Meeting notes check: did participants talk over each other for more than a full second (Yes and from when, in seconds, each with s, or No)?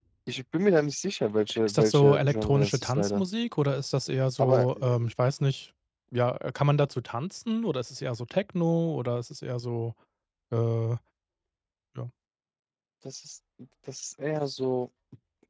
Yes, from 1.7 s